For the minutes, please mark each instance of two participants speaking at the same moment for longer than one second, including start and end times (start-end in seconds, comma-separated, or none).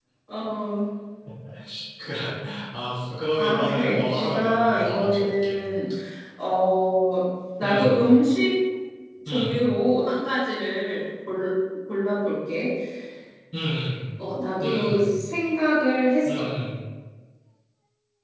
3.4-5.6